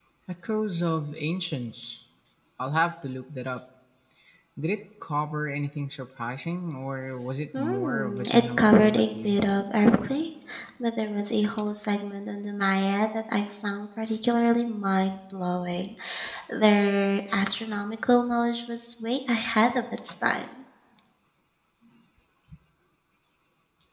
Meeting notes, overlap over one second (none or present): present